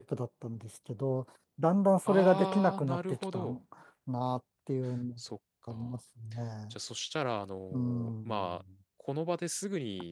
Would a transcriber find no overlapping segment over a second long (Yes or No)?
No